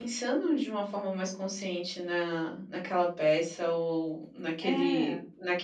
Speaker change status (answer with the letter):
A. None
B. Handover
A